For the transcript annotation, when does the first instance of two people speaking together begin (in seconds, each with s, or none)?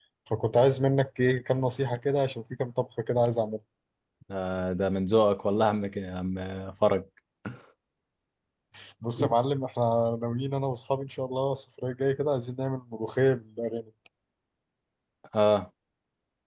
none